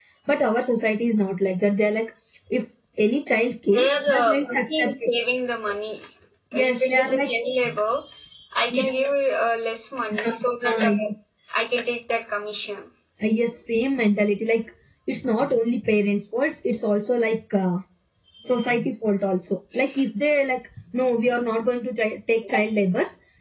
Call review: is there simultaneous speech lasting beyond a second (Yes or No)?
Yes